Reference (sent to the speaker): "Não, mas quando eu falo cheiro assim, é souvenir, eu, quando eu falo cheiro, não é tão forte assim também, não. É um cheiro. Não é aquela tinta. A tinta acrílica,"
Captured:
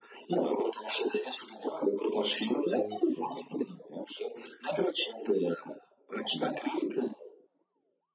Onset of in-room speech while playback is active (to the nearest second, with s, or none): 3 s